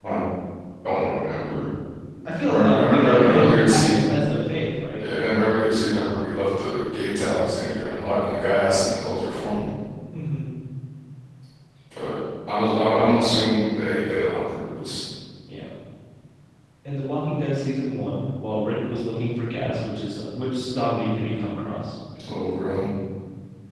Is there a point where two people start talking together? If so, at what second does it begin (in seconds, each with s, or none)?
2.5 s